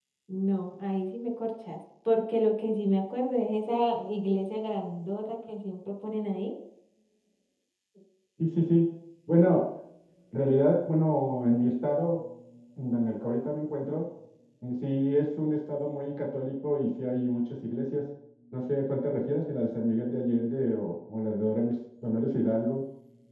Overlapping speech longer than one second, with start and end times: none

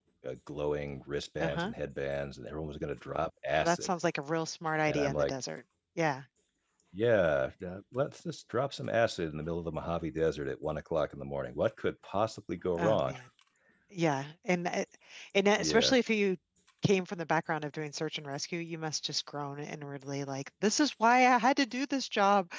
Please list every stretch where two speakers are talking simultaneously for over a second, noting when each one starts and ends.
none

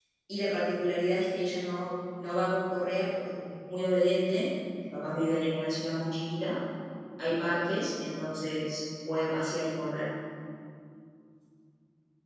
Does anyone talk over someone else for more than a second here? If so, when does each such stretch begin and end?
none

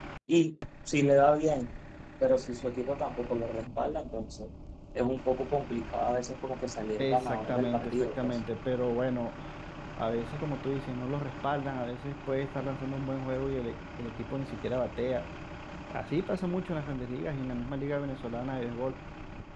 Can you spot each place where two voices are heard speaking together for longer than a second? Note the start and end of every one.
7.0-8.4

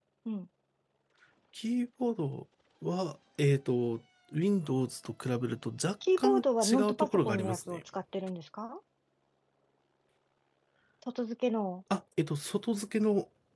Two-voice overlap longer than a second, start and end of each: 6.2-7.8

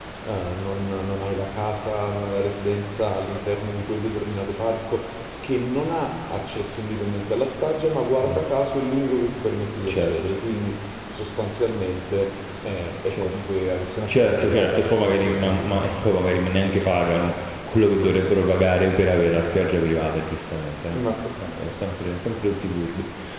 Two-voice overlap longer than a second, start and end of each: 14.1-16.4

